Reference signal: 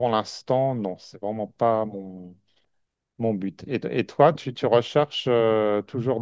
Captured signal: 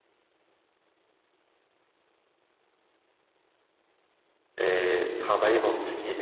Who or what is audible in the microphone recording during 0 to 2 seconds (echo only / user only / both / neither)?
neither